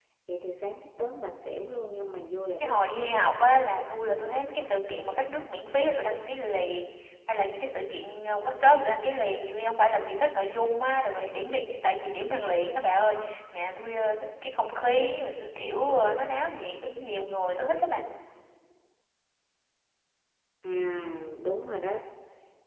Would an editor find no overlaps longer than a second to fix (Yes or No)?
Yes